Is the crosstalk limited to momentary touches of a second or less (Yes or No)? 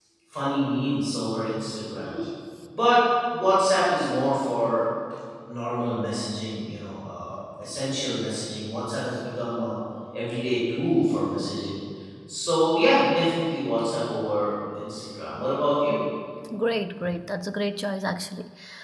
Yes